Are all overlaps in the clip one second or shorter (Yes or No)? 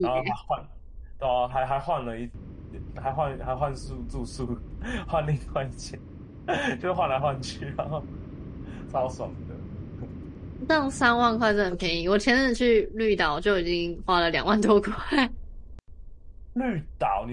Yes